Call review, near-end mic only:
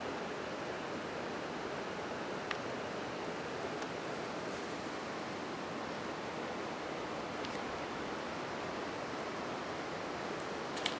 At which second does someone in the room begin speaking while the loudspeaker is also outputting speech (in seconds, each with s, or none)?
none